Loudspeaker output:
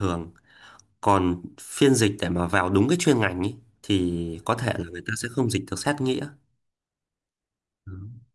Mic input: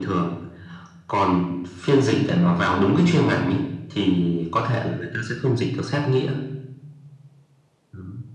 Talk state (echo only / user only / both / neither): echo only